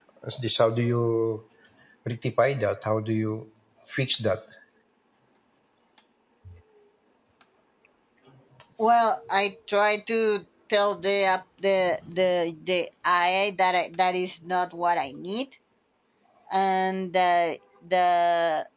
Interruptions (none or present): none